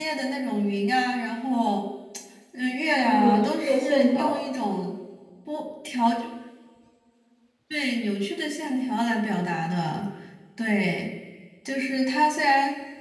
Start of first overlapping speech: 3 s

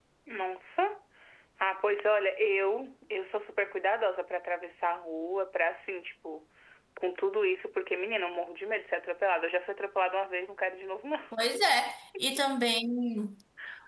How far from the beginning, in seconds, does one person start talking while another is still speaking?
none

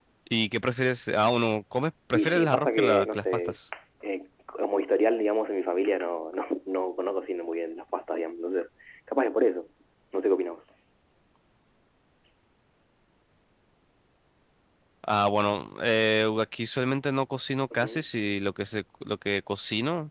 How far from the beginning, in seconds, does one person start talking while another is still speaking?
2 s

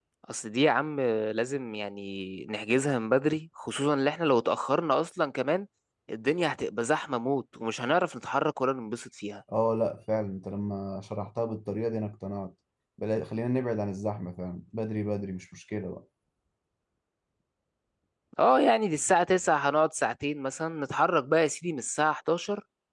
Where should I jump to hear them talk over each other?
none

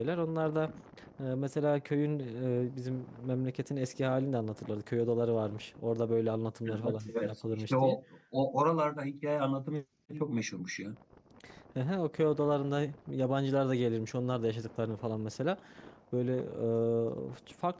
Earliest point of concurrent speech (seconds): 7 s

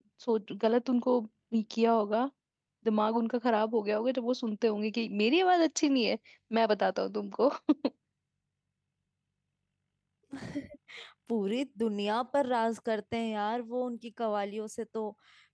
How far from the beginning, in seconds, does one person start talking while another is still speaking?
none

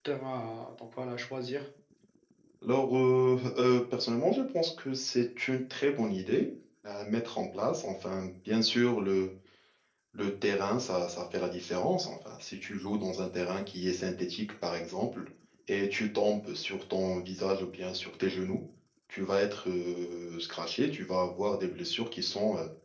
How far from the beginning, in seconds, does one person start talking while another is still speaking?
none

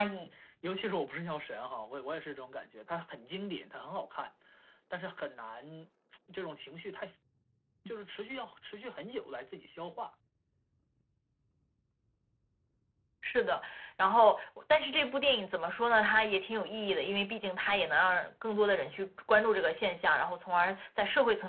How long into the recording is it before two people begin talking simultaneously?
none

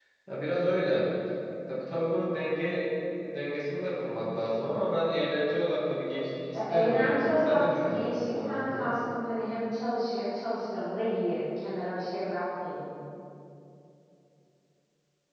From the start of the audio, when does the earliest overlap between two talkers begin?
7 s

